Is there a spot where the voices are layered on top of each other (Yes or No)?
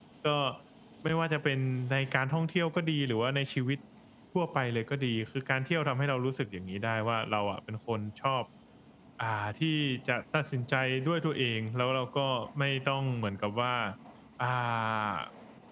No